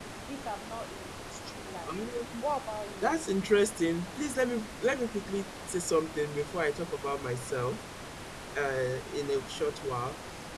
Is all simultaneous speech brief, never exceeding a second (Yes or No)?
Yes